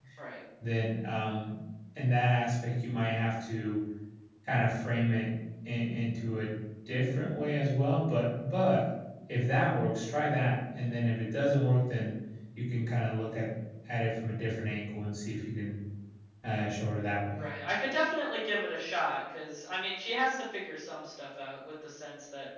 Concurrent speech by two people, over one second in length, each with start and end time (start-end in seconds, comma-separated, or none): none